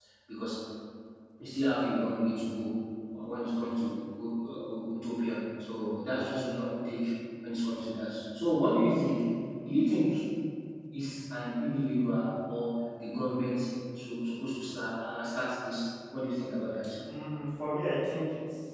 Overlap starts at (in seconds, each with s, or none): none